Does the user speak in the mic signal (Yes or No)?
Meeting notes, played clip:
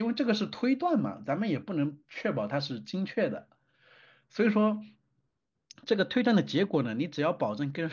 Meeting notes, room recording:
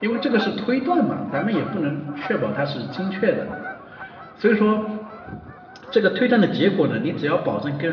No